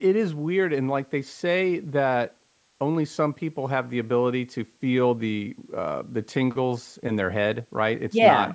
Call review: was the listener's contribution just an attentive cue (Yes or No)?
Yes